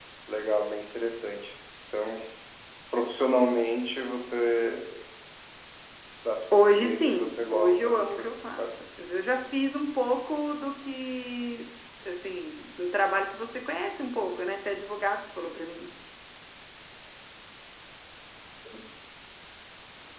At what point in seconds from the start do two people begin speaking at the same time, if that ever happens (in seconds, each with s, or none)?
6.5 s